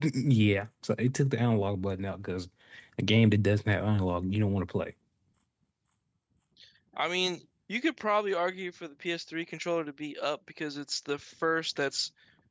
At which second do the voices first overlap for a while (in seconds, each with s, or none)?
none